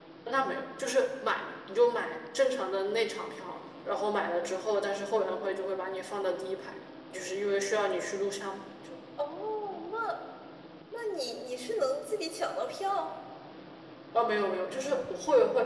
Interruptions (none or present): none